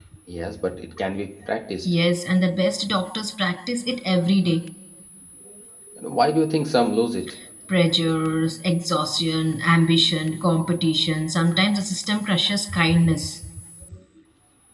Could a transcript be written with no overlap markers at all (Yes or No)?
Yes